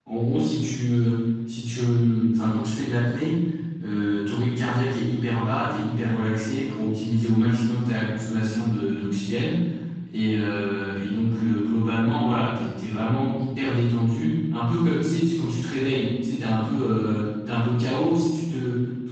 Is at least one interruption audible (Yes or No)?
No